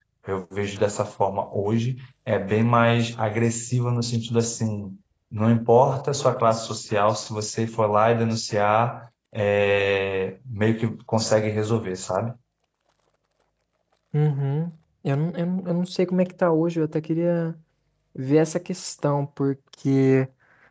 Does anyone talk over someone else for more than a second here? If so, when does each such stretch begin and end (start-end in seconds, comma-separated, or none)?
none